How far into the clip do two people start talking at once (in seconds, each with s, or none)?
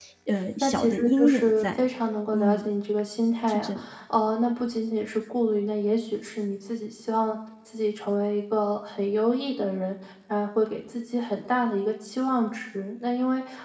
0.6 s